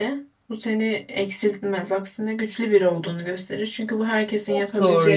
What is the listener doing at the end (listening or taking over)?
taking over